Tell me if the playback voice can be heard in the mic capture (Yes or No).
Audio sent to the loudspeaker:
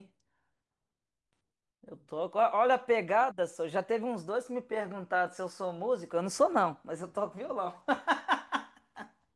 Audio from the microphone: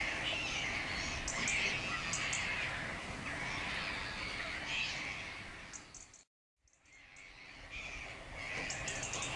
No